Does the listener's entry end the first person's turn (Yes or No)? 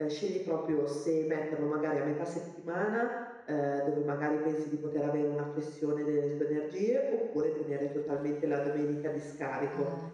No